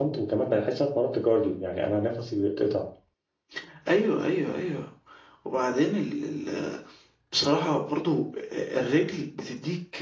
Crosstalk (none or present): none